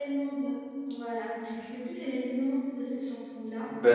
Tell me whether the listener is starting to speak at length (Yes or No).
Yes